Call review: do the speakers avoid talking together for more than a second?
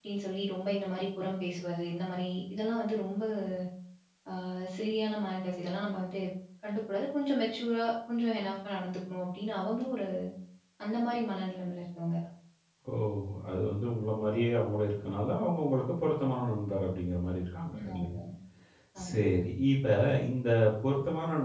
Yes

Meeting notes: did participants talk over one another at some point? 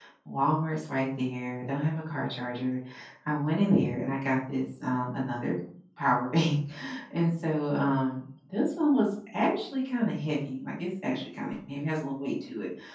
No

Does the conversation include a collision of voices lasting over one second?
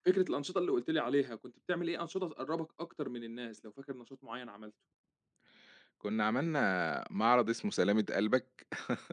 No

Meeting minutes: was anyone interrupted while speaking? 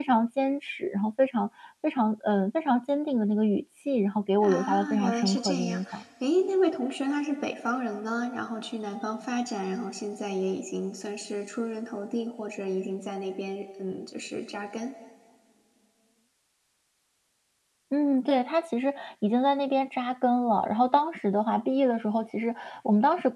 Yes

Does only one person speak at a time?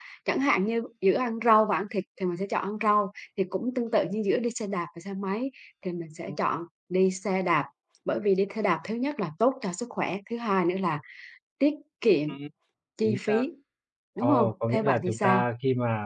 No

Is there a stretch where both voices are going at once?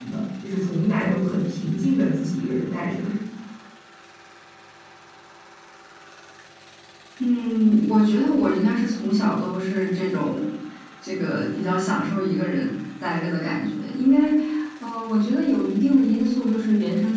No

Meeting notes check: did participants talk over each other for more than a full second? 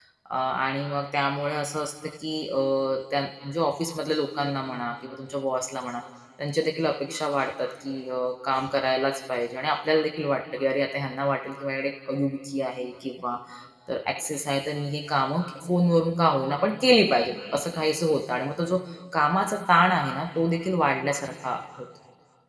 No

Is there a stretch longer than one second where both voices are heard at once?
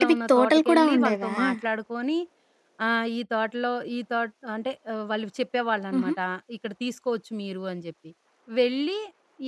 Yes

